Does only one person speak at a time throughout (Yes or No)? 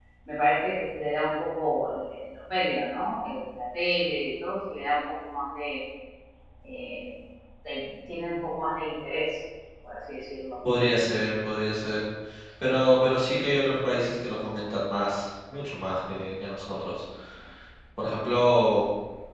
Yes